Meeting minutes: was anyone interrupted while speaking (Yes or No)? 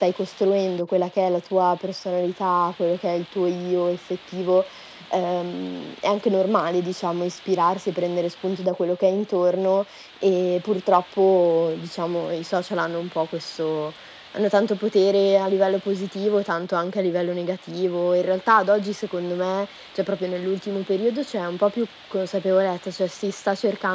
No